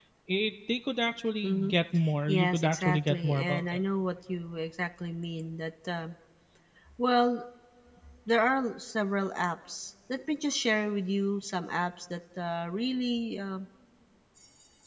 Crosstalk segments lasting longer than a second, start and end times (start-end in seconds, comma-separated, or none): 2.3-3.6